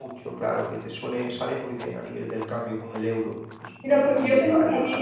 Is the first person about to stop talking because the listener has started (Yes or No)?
Yes